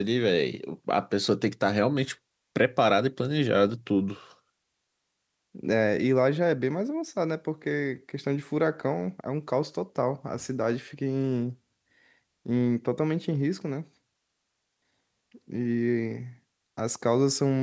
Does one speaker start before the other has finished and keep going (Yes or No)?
No